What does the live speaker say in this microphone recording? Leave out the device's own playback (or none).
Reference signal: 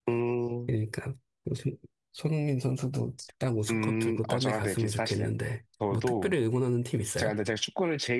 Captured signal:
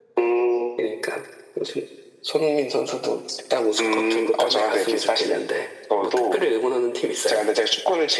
none